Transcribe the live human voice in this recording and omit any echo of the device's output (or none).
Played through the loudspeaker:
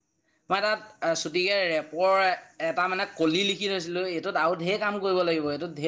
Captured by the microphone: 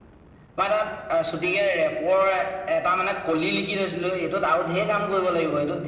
none